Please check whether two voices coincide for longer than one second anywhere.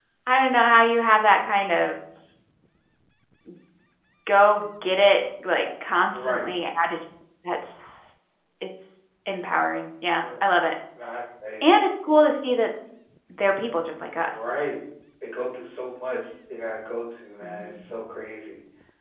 No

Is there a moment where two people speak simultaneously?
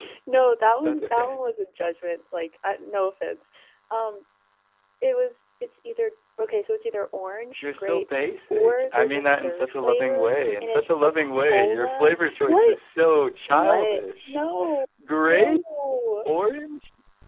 Yes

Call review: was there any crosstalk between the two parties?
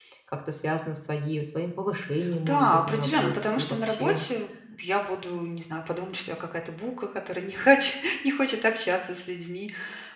Yes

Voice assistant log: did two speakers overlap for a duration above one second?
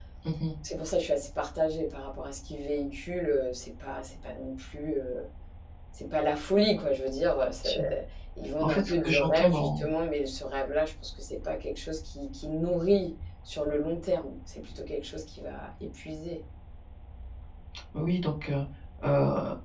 Yes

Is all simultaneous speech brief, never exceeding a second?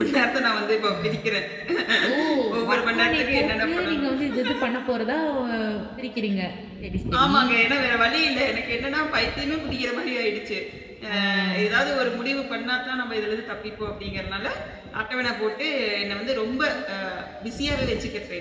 No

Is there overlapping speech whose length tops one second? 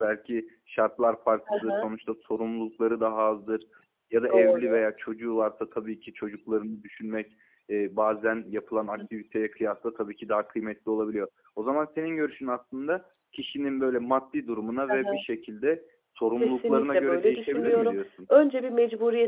Yes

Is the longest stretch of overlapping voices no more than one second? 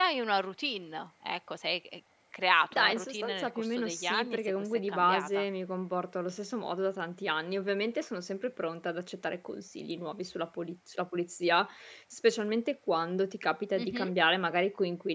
No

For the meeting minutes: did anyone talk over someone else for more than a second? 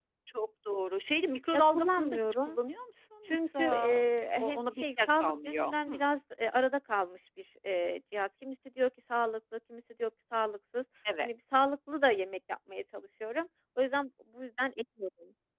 Yes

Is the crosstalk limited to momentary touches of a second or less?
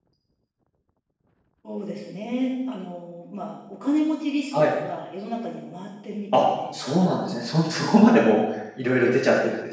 Yes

